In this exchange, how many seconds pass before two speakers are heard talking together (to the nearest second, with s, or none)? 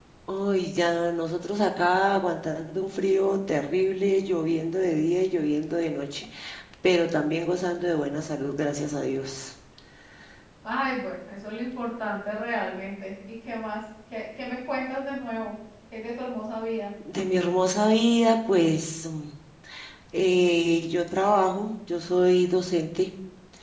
none